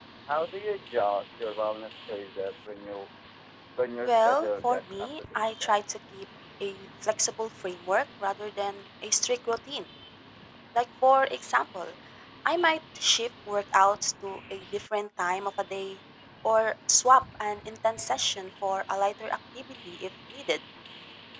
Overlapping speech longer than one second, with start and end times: 4.0-5.8

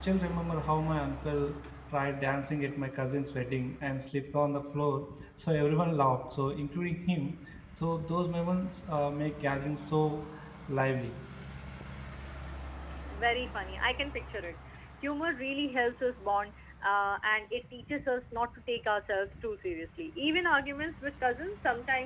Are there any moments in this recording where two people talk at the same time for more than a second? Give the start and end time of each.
none

